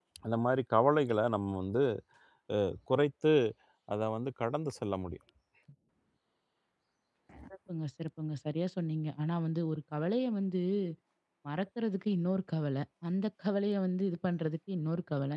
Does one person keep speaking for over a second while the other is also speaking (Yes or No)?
No